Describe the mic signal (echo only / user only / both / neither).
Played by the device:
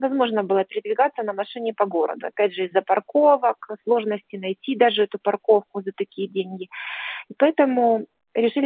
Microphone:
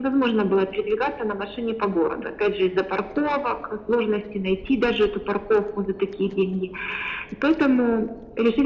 echo only